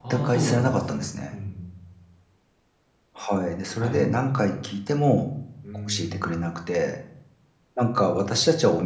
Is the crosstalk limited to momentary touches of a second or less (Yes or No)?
No